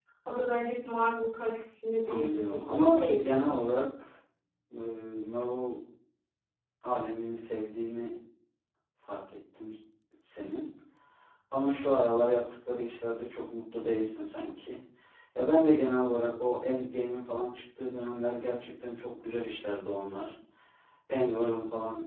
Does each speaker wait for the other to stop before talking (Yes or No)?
No